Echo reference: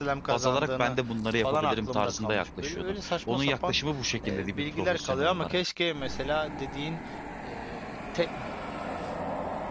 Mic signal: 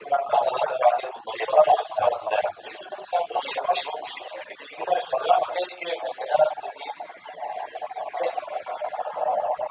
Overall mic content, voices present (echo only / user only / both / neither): echo only